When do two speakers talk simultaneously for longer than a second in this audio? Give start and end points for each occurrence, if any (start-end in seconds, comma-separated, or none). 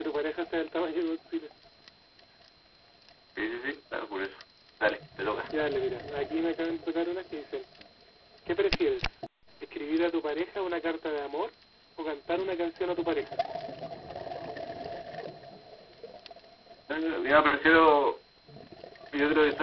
none